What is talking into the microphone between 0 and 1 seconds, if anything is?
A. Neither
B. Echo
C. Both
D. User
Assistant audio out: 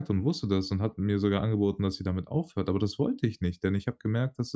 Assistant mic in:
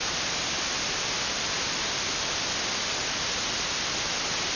A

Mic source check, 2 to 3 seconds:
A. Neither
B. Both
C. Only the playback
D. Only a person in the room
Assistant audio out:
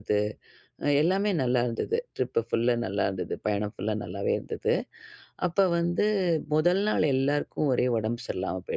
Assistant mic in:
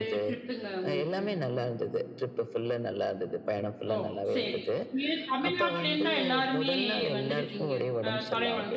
C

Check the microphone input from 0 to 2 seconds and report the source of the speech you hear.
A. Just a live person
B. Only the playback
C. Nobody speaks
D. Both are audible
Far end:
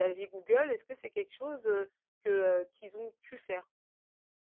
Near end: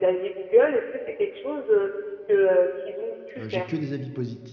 B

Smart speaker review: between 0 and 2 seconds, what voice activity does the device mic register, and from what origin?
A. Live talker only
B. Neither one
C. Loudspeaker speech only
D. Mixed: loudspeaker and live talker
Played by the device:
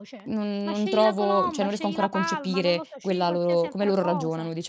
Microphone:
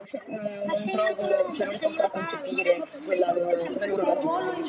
C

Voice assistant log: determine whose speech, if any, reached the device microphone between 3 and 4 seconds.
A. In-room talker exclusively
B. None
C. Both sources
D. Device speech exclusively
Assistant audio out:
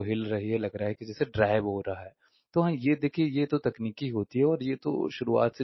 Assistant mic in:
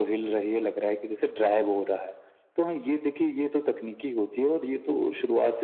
D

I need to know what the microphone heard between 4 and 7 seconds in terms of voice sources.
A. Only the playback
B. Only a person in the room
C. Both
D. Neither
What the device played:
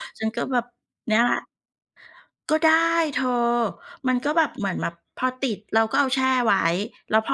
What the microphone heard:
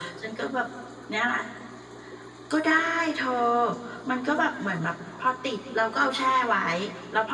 A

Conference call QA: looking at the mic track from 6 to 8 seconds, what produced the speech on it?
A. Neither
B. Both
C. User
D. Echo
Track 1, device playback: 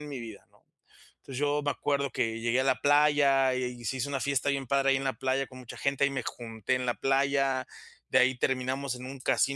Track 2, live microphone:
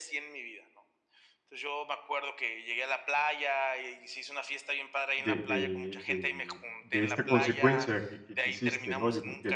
B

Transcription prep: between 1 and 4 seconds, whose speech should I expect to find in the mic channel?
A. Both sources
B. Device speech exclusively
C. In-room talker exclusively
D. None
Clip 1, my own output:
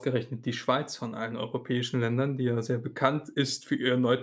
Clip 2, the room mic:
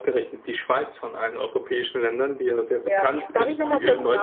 A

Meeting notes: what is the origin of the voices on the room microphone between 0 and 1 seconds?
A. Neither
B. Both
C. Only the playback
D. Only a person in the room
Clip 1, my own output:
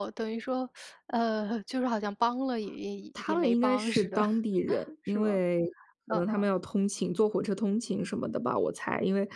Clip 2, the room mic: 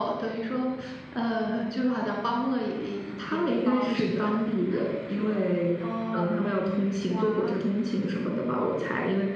C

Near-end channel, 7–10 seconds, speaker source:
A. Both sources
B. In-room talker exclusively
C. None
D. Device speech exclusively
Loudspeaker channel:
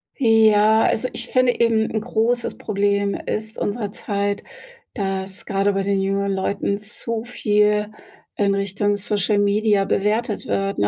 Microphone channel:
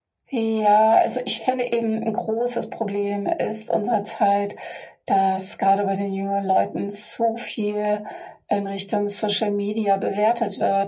D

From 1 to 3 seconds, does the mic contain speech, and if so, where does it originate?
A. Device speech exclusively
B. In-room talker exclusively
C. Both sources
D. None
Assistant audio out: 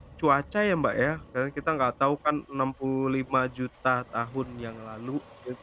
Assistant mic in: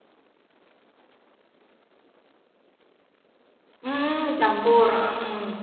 D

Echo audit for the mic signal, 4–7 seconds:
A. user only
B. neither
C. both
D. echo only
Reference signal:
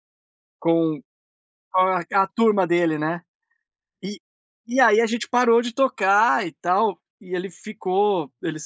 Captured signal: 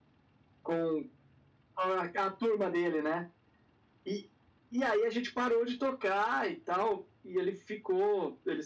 D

